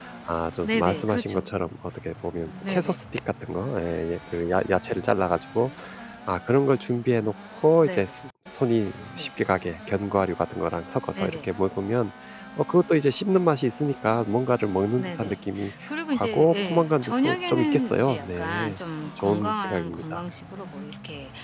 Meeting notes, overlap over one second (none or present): present